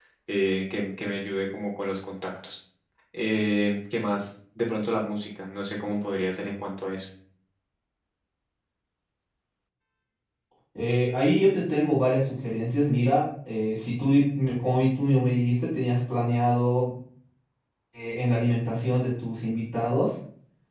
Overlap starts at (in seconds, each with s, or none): none